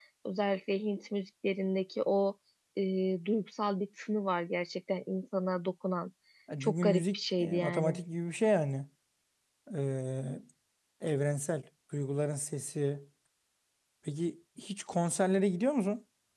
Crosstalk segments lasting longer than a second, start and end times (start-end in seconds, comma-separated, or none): 6.6-8.0